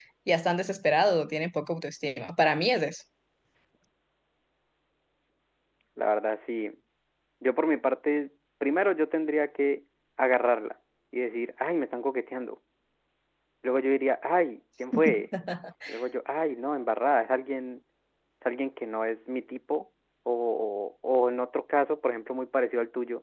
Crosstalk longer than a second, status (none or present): none